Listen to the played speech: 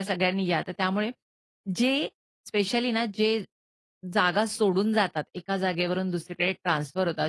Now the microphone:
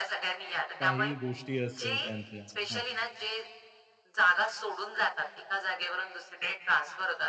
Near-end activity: present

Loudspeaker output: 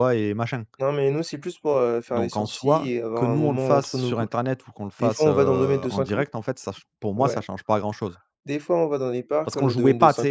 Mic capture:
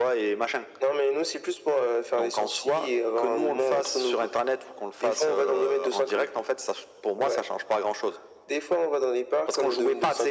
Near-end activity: none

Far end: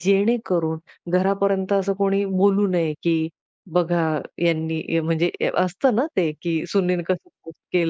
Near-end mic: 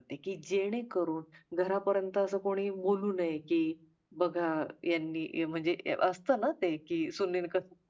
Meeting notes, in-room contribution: none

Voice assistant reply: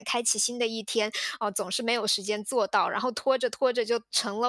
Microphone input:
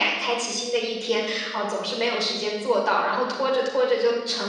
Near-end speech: none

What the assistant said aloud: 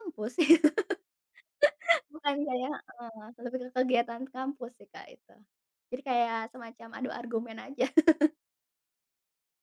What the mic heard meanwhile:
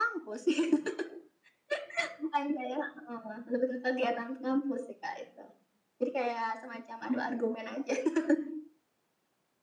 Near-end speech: none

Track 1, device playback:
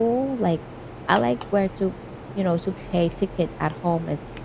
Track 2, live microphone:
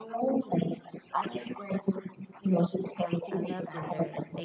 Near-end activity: present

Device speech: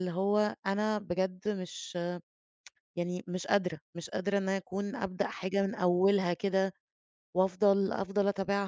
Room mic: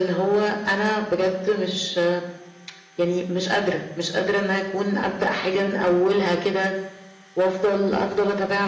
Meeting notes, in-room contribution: none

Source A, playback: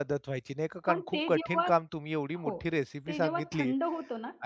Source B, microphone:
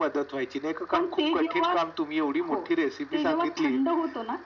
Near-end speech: none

